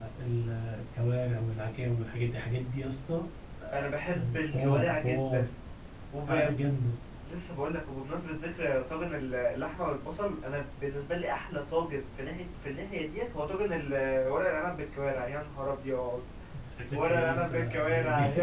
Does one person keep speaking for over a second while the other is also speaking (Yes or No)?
Yes